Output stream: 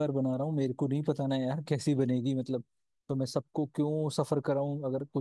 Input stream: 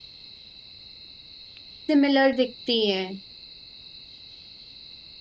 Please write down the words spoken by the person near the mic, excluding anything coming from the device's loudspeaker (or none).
सिमिलर दिखती है